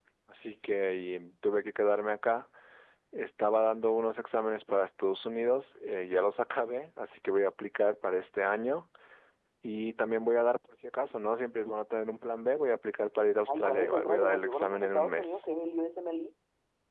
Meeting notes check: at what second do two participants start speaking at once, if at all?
13.5 s

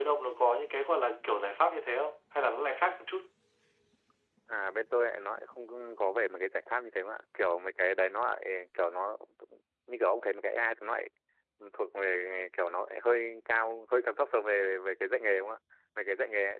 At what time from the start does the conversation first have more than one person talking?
none

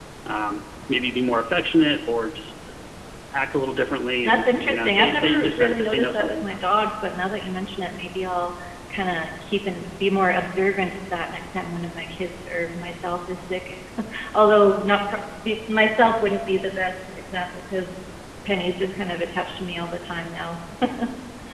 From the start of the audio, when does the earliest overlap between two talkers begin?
4.2 s

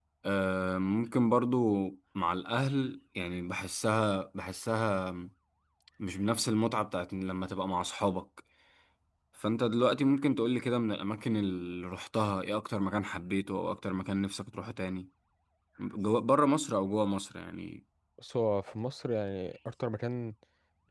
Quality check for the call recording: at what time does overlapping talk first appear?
none

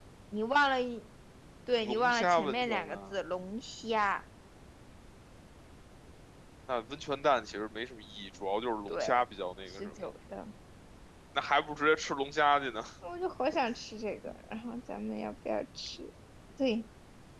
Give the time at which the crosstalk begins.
1.8 s

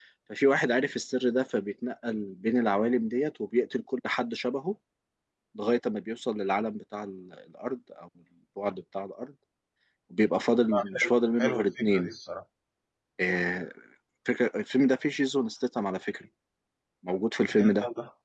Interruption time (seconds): 10.7 s

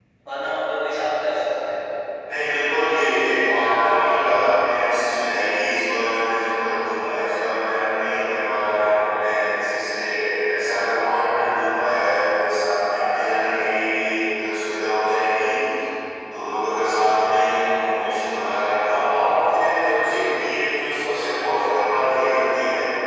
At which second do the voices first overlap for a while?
none

